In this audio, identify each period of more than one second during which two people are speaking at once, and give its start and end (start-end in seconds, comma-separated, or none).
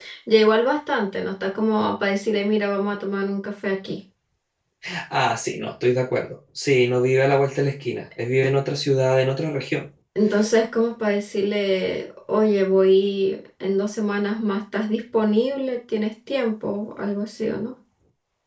none